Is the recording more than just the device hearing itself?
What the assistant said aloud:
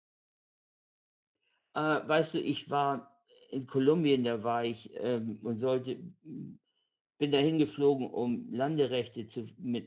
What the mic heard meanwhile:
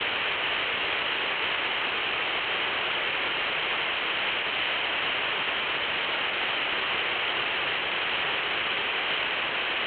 No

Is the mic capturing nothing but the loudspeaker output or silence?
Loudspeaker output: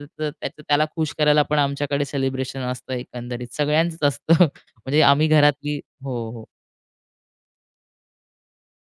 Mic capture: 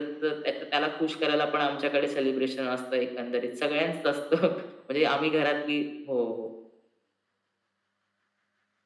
Yes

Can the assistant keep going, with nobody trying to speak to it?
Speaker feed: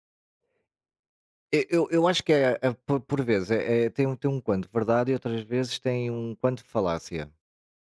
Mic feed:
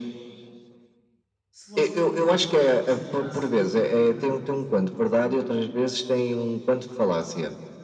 No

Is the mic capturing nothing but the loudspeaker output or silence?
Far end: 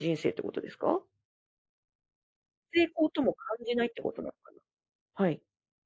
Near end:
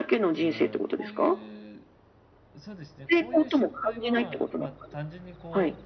No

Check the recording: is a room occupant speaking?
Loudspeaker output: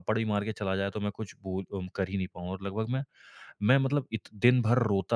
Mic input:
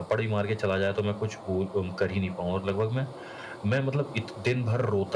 No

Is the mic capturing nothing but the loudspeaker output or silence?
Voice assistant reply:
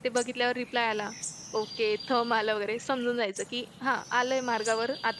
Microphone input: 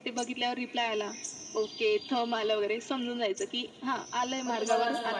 No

